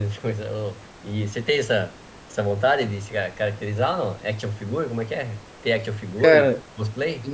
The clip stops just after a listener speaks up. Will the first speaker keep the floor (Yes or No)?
No